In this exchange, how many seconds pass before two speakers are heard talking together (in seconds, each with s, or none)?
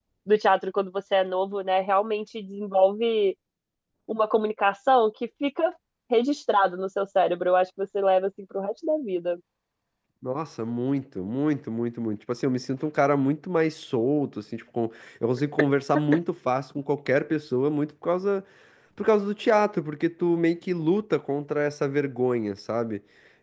none